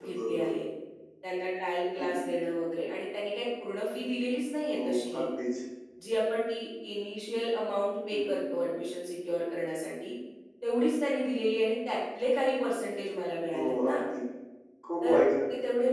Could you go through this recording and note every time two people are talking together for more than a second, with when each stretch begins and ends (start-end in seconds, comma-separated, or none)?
none